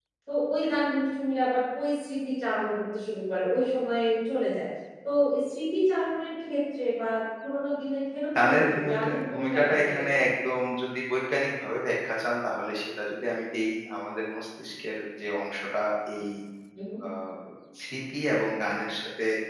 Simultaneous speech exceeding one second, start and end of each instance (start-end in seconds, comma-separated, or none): 8.4-10.3